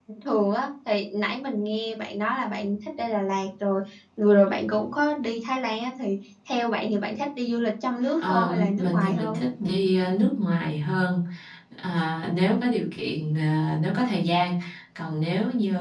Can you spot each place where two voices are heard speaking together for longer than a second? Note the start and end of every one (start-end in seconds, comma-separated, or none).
8.2-9.4